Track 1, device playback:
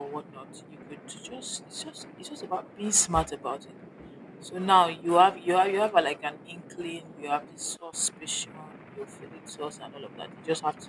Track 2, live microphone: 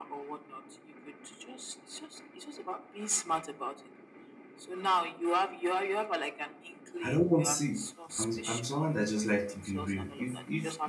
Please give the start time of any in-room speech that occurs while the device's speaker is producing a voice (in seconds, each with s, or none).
7.0 s